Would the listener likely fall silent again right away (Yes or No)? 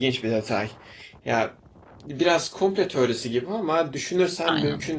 Yes